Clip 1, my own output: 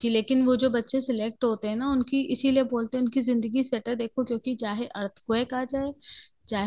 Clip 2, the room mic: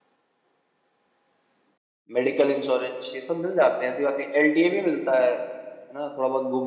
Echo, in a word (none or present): none